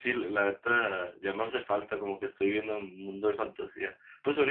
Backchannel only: Yes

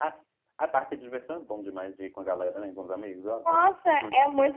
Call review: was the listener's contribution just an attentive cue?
No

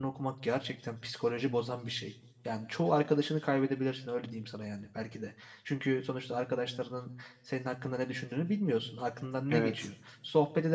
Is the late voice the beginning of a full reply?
No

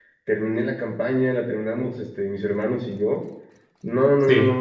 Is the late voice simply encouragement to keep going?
Yes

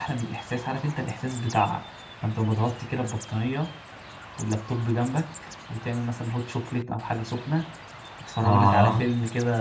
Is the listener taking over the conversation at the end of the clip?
No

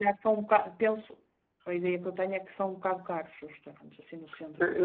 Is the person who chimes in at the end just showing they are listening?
No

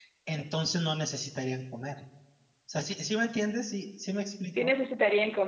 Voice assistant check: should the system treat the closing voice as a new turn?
Yes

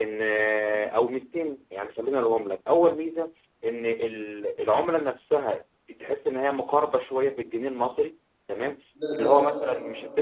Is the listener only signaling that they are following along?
Yes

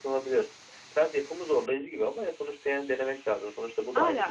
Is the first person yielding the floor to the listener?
Yes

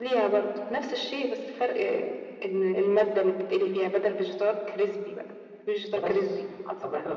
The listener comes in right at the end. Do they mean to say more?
Yes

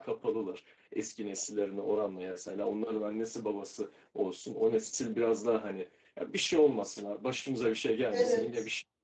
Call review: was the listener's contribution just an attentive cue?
Yes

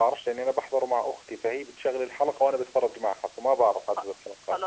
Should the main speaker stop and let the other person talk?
Yes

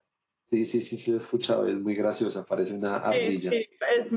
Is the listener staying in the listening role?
No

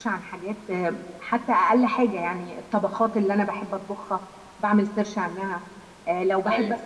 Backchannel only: Yes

